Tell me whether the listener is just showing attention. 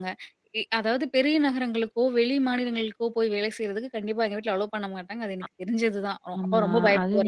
No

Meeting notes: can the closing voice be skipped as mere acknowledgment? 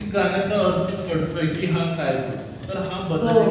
No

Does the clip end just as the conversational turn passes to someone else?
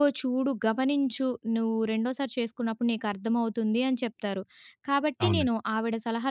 No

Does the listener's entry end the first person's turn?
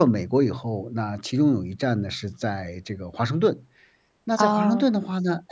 No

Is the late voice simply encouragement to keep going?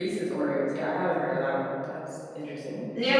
No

